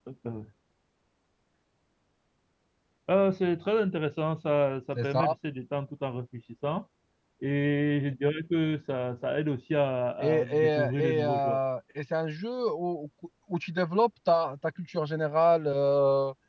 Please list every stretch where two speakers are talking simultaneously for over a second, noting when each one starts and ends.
10.2-11.6

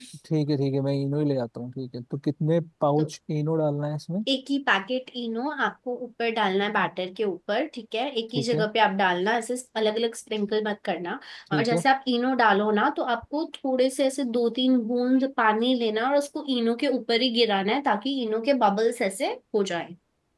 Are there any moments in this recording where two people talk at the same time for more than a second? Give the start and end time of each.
none

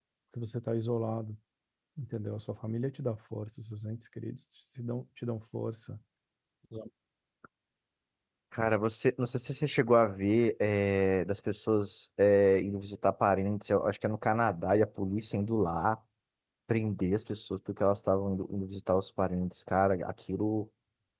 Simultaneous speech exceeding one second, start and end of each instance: none

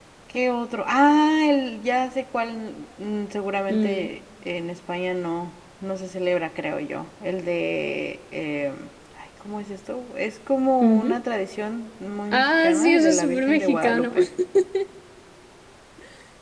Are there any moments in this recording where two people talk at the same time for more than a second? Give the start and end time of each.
12.3-14.1

